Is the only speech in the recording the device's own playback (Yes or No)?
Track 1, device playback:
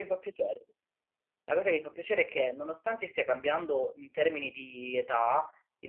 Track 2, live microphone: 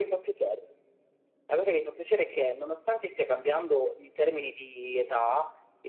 Yes